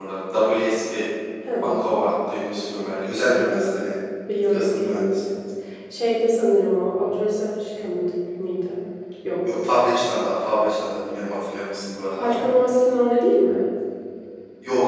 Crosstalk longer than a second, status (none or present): present